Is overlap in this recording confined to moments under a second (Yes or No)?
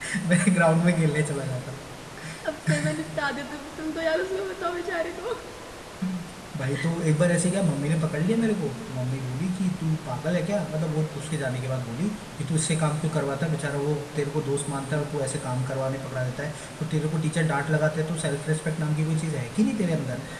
Yes